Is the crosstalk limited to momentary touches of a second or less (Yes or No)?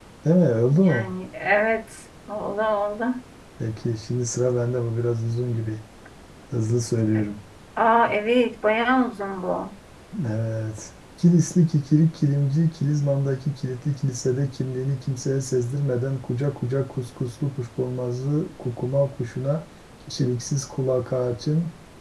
Yes